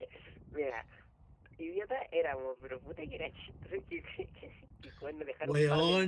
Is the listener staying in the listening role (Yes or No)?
Yes